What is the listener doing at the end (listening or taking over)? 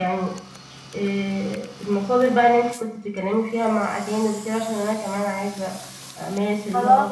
taking over